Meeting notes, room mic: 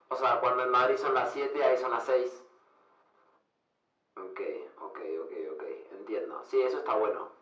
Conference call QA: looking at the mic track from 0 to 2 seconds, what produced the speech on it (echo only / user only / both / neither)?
echo only